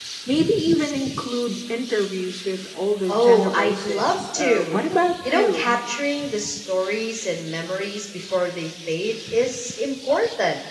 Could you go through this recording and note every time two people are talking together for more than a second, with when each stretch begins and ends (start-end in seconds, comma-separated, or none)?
3.1-4.8